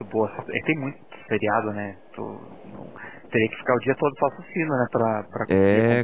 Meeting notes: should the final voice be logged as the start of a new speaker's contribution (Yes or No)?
Yes